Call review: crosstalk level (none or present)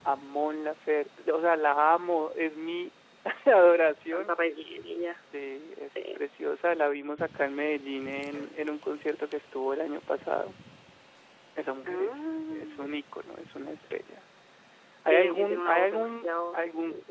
present